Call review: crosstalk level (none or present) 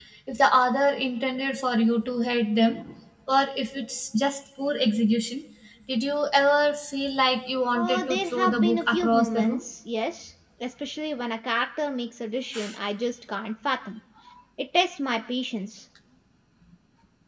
present